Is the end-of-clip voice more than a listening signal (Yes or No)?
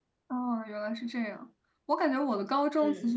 No